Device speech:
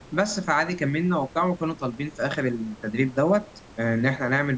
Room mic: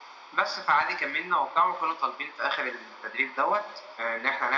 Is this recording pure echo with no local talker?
Yes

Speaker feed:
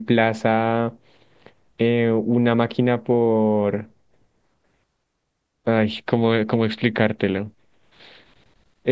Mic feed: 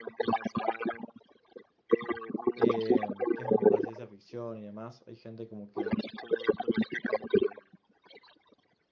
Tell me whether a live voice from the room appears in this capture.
Yes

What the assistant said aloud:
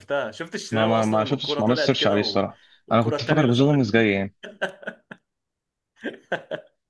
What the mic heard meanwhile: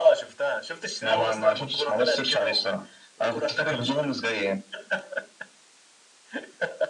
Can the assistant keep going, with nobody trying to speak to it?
Yes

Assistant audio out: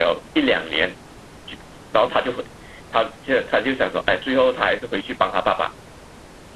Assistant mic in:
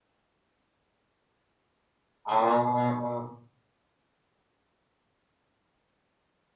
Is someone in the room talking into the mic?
Yes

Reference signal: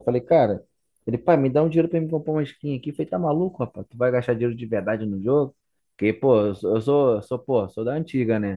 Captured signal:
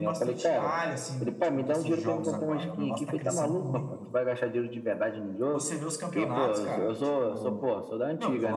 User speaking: Yes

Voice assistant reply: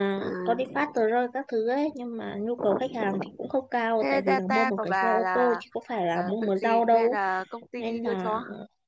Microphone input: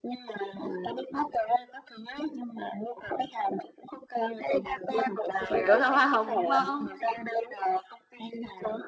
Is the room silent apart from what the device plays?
No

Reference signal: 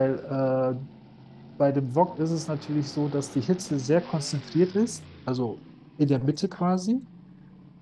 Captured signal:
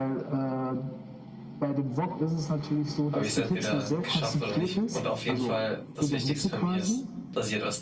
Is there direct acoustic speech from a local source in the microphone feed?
Yes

